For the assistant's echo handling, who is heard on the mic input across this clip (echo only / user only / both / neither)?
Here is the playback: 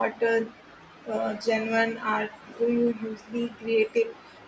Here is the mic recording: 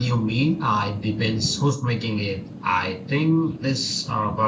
user only